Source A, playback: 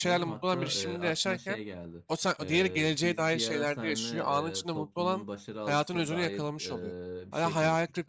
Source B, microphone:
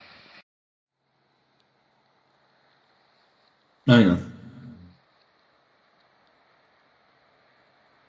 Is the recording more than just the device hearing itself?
Yes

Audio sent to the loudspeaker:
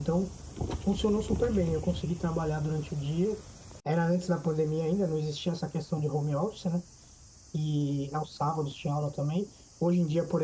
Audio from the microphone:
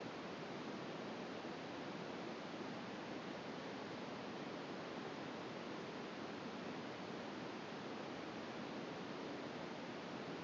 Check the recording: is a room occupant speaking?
No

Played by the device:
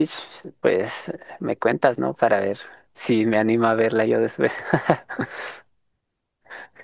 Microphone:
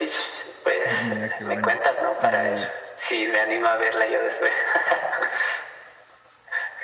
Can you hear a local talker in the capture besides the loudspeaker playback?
Yes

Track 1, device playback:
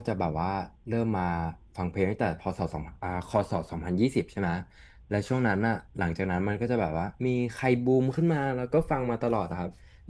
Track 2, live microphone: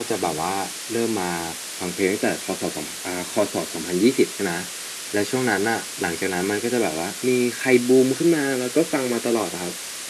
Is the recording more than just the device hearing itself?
No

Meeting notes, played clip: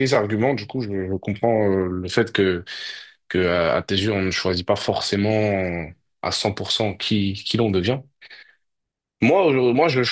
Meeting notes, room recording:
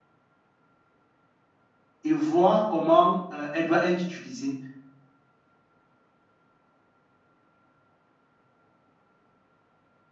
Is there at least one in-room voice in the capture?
Yes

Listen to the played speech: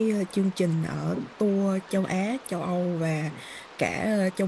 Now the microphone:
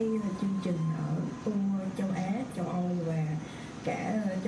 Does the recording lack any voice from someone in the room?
Yes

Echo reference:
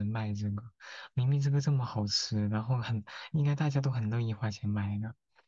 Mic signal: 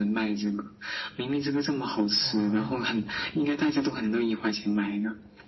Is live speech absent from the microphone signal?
No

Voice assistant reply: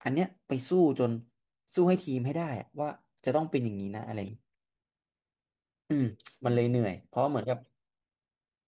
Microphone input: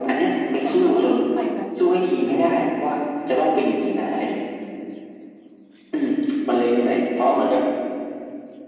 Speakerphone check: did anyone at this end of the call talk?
Yes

